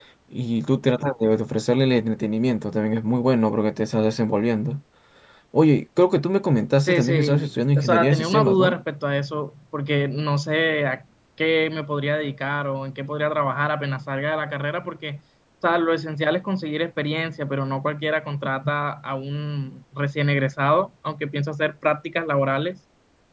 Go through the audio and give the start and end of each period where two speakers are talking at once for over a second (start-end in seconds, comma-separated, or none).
6.9-8.7